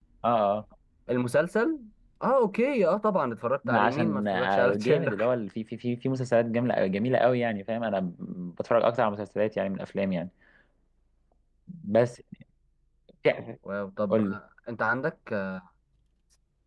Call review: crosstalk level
present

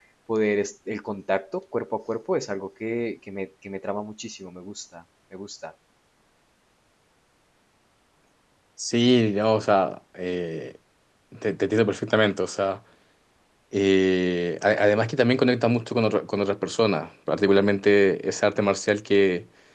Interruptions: none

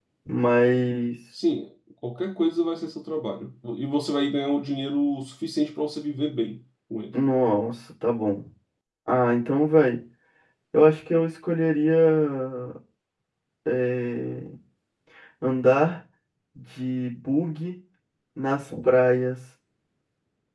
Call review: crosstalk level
none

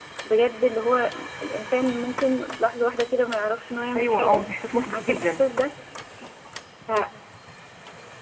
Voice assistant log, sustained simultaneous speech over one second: none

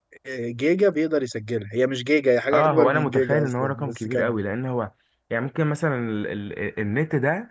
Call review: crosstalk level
present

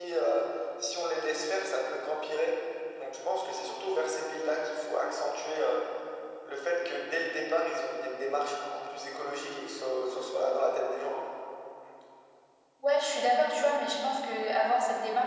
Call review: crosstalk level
none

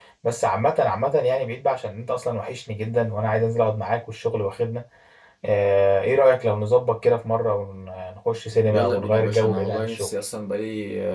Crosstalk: present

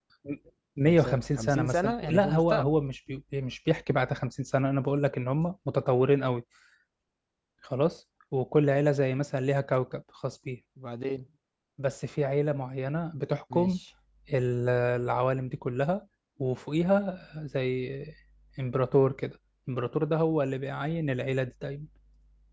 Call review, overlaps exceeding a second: present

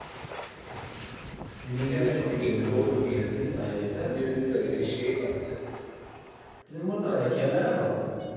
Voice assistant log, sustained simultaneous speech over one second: present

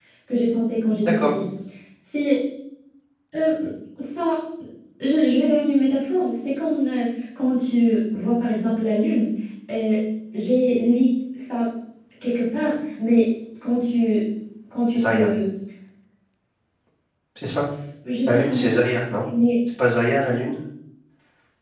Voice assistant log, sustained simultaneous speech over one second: none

